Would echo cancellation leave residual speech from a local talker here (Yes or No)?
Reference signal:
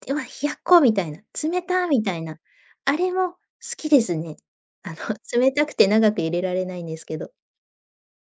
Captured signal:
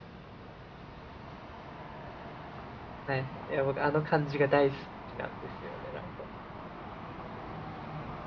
Yes